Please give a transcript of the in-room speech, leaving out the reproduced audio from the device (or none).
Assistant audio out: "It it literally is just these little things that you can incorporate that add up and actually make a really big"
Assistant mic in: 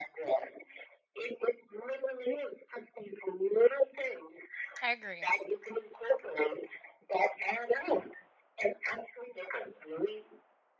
I agree.